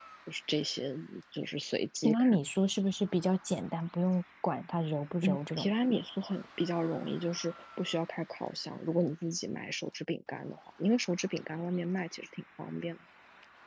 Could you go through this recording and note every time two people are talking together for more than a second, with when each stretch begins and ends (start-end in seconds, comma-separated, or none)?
none